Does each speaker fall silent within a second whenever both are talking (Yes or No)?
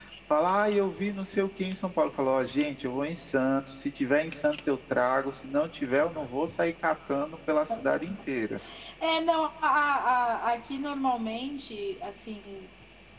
Yes